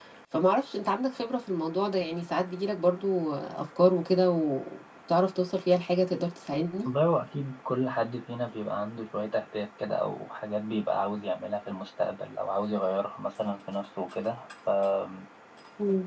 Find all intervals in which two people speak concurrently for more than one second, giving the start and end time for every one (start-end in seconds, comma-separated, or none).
none